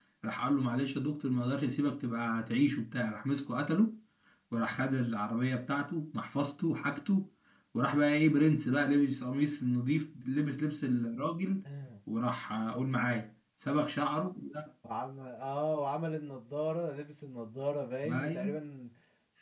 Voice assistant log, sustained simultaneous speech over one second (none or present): none